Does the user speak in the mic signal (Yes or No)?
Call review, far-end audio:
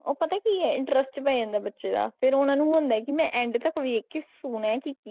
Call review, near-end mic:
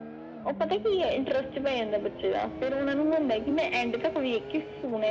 No